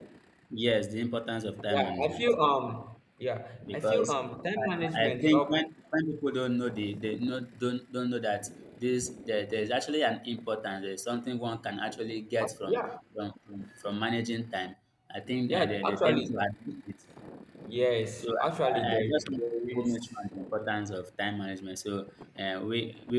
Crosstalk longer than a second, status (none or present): present